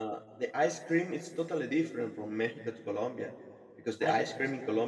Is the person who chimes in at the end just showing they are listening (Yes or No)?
Yes